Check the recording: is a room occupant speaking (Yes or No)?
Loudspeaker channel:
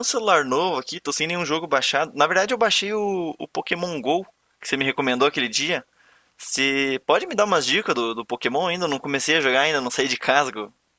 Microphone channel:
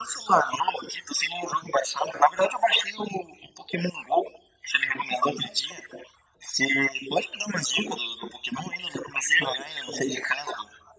No